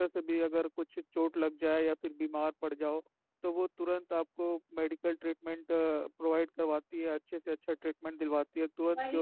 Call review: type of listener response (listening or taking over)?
taking over